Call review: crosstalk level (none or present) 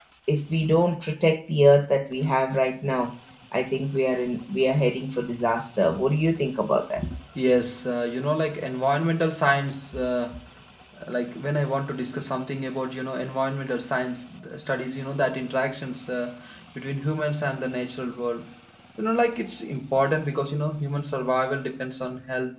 none